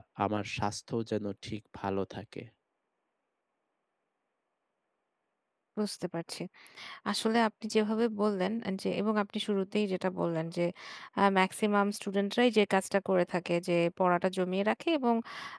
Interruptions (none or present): none